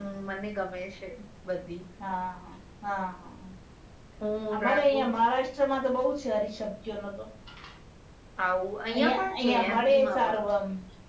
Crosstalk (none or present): present